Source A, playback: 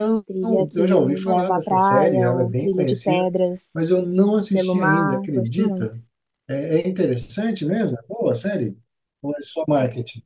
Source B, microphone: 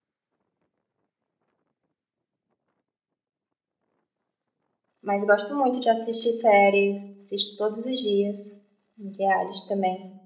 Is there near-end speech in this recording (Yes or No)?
Yes